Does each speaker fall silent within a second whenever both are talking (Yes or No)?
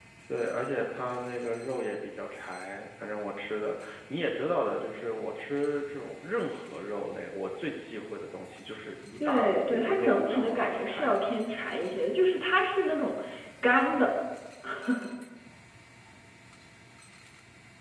No